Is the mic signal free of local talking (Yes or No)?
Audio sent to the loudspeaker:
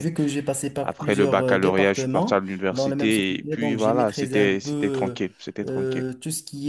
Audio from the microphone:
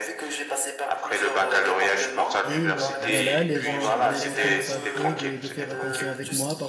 No